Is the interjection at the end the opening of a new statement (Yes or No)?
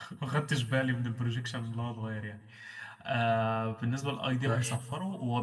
No